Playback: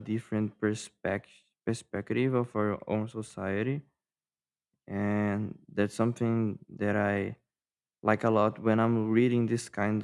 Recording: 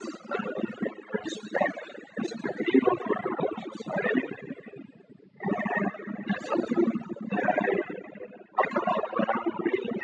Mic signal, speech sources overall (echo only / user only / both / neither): echo only